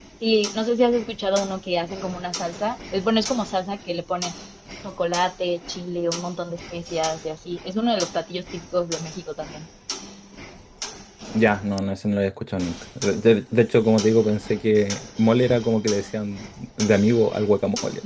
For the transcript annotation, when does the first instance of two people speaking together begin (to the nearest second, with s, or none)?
none